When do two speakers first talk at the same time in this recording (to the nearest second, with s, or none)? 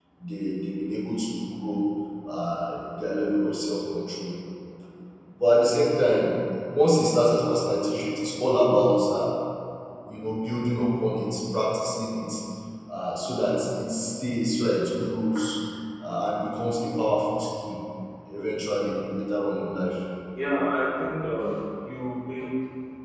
none